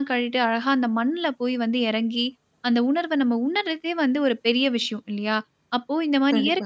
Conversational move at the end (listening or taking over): listening